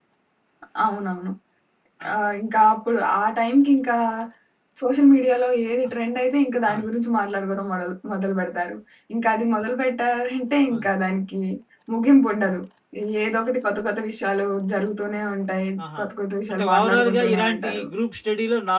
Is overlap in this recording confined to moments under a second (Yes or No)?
No